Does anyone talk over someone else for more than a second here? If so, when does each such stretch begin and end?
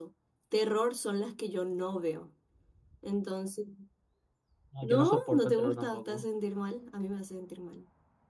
4.8-6.2

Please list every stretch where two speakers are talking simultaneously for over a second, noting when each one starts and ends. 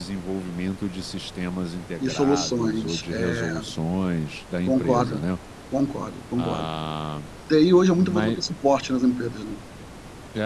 2.0-3.5

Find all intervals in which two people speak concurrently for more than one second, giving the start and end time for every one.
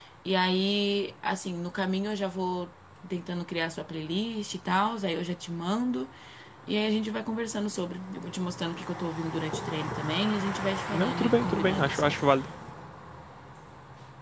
10.9-12.1

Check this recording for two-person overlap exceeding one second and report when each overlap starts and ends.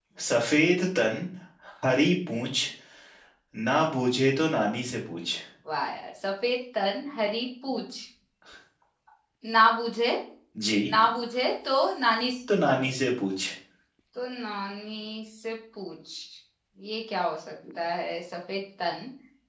none

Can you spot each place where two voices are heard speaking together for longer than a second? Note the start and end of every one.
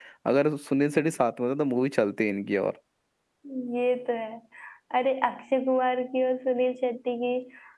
none

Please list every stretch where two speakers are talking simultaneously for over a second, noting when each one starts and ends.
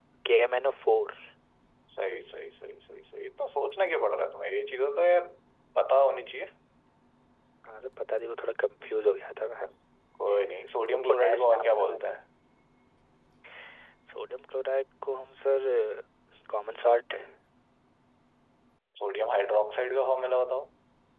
10.9-12.2

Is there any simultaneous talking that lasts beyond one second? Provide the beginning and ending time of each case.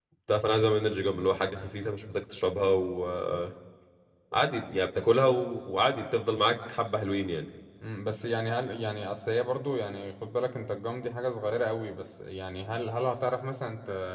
none

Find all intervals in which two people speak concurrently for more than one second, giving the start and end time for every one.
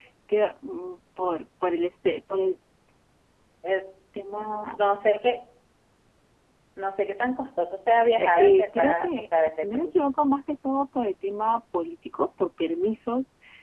8.2-9.9

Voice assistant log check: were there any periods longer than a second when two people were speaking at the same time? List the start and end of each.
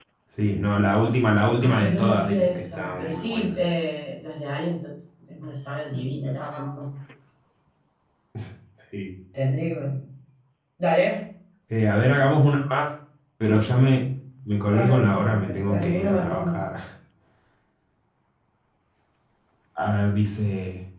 1.6-3.5, 14.7-16.7

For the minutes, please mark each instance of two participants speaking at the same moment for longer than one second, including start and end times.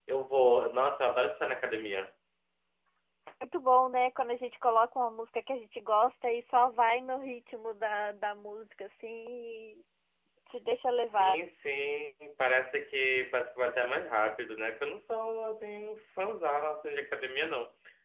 none

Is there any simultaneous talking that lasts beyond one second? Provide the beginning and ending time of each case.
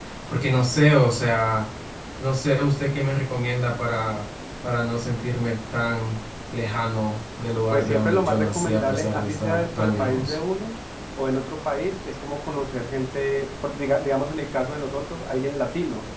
7.7-10.4

